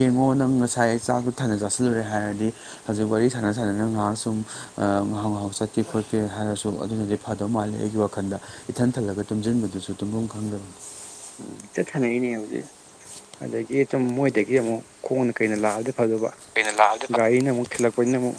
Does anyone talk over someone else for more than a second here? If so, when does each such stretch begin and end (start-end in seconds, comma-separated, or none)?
none